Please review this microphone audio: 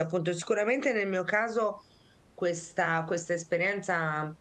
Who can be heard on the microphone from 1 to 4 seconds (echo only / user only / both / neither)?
user only